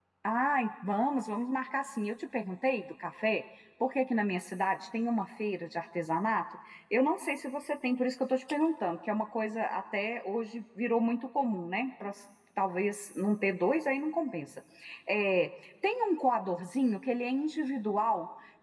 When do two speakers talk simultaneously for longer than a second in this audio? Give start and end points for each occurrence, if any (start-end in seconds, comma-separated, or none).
none